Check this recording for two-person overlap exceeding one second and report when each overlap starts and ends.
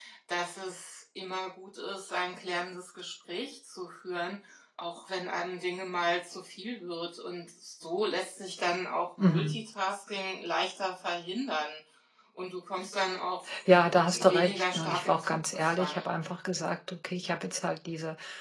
14.1-16.1

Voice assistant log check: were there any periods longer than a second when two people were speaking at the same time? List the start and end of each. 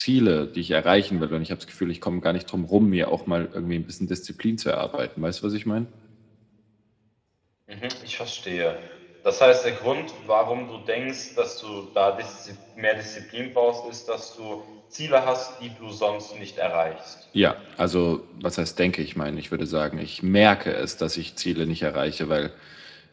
none

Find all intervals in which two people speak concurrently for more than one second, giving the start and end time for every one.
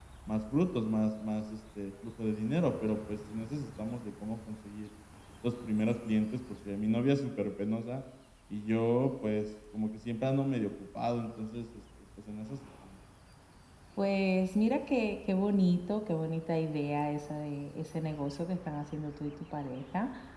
none

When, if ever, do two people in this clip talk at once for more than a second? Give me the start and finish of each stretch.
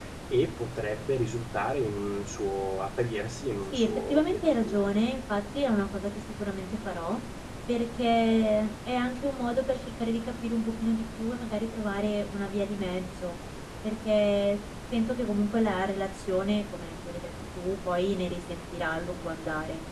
3.7-5.0

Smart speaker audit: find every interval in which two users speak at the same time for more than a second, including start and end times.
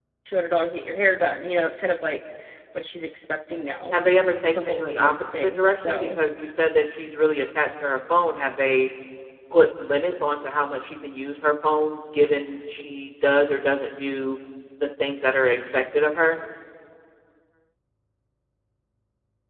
4.6-6.2

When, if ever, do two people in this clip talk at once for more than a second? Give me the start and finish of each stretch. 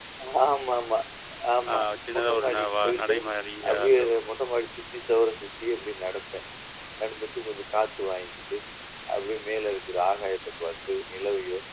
1.7-3.1

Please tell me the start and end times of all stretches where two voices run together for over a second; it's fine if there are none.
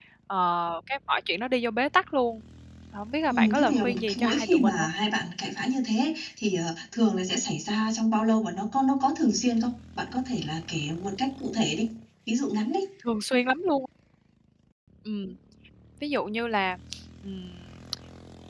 3.3-4.9

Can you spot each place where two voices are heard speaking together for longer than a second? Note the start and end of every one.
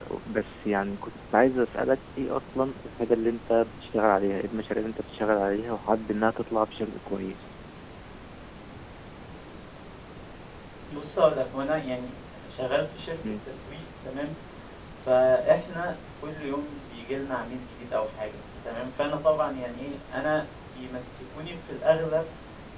none

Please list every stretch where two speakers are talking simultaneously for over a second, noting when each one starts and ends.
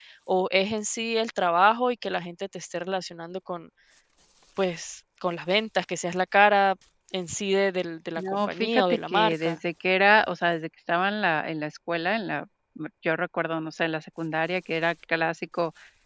8.2-9.6

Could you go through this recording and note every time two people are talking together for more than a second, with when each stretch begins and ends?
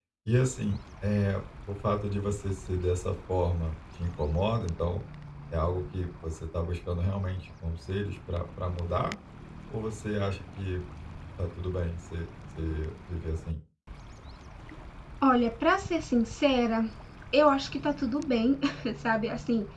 none

